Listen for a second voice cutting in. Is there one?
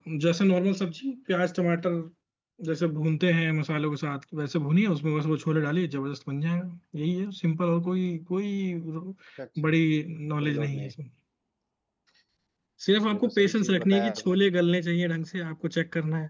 Yes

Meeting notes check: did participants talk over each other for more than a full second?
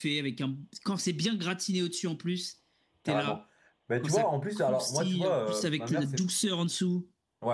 Yes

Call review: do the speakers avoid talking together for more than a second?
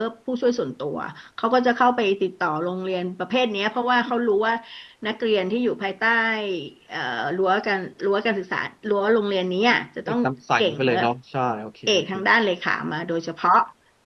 Yes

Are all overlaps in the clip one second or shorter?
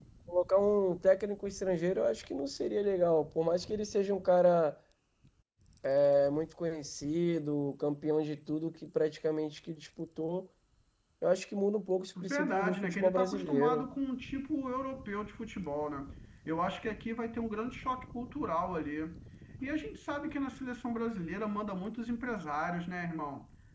No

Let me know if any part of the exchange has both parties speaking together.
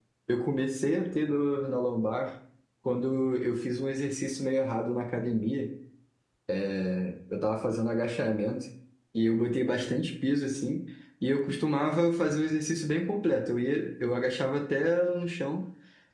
No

